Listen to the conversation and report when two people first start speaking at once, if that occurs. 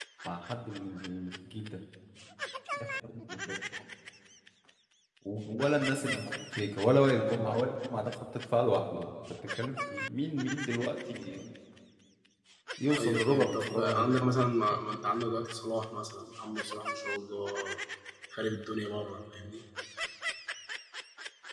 13.0 s

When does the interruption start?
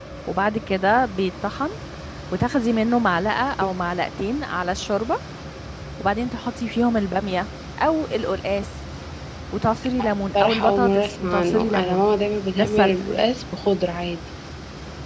10.3 s

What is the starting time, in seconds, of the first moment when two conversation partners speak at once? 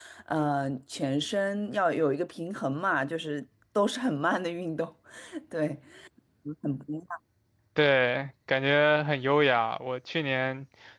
none

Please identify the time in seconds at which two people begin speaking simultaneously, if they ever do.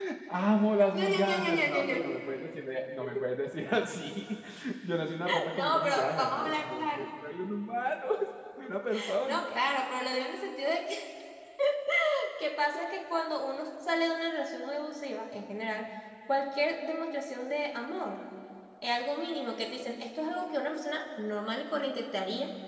0.9 s

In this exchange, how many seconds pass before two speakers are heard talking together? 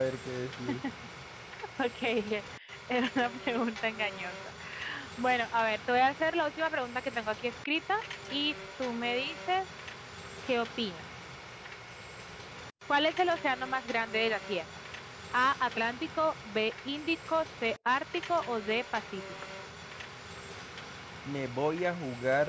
none

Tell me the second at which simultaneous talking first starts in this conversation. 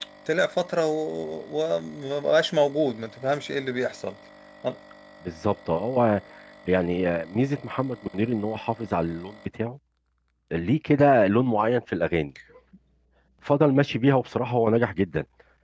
none

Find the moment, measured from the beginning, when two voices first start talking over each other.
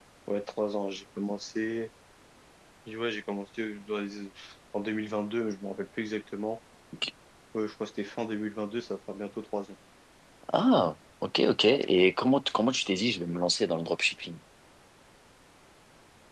none

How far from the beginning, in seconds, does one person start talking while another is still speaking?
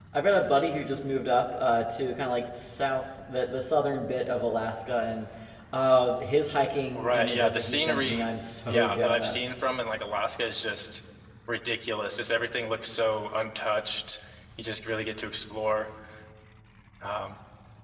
6.9 s

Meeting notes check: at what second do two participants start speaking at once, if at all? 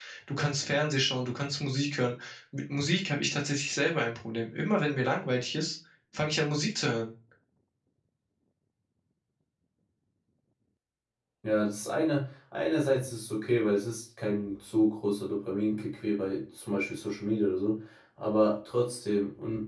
none

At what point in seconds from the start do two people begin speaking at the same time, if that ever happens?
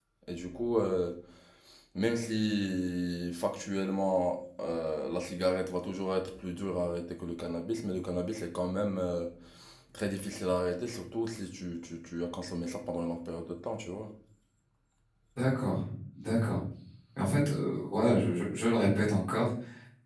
none

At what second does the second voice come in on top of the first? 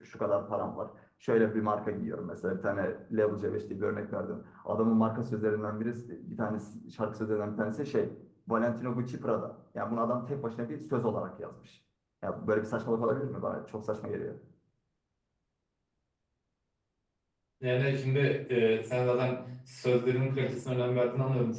none

